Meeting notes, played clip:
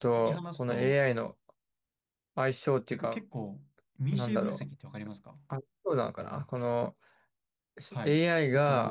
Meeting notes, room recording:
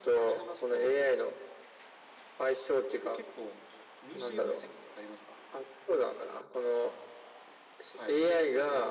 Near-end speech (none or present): none